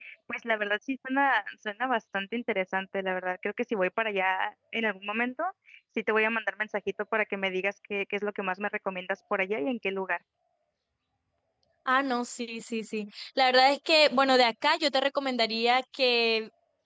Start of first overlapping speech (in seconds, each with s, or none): none